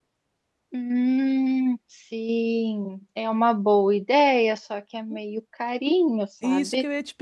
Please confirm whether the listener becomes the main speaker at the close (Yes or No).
Yes